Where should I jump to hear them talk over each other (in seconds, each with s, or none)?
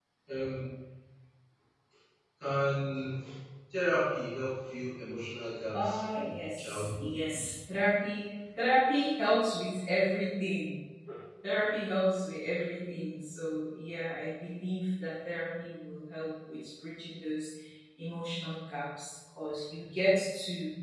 5.7 s